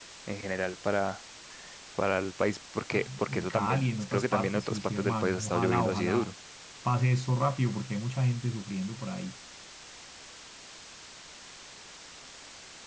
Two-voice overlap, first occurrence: 2.9 s

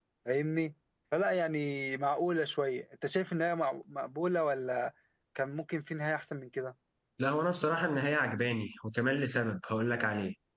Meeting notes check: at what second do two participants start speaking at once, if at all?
none

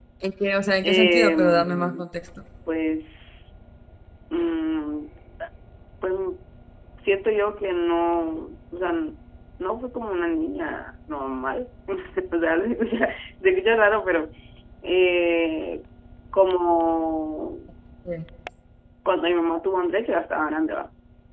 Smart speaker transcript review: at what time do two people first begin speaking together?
0.8 s

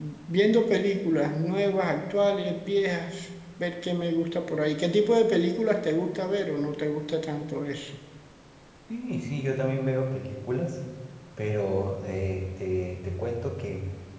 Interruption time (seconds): none

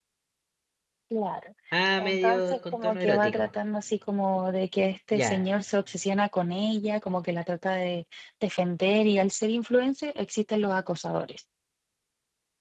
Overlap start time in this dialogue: 2.0 s

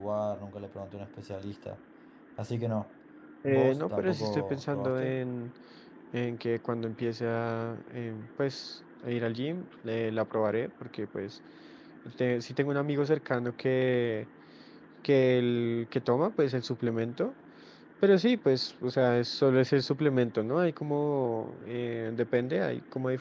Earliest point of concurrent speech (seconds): 3.5 s

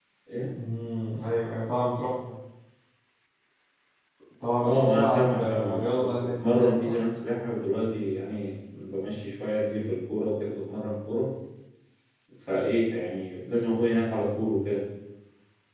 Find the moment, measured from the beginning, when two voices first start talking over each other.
4.6 s

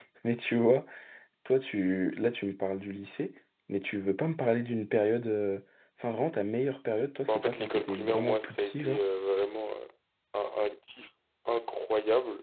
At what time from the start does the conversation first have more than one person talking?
7.3 s

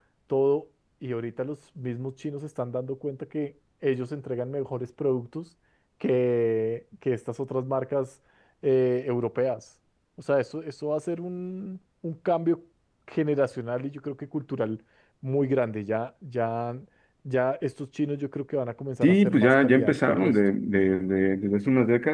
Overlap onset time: 19.0 s

